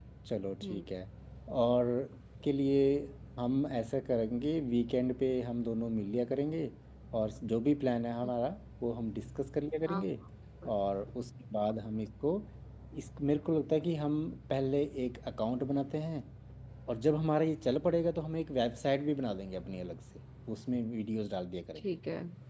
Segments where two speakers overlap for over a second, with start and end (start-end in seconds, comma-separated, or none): none